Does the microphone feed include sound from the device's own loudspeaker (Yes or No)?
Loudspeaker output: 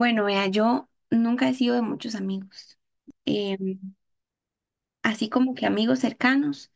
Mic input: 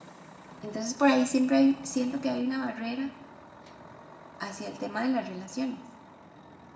No